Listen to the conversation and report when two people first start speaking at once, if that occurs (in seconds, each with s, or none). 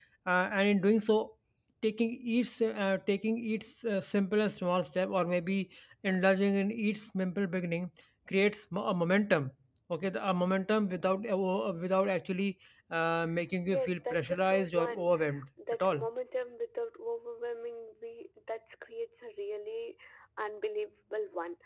13.7 s